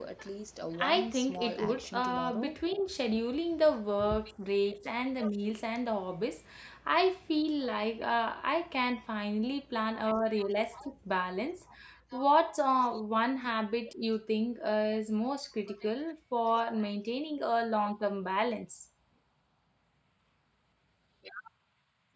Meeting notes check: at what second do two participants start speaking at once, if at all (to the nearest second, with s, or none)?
1 s